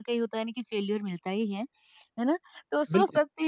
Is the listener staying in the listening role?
Yes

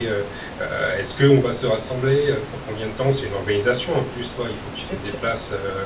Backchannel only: Yes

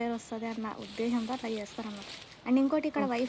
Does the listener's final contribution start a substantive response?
No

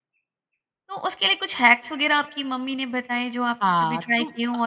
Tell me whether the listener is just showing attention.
No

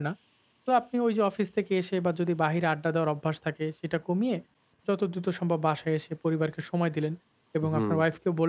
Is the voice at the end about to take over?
No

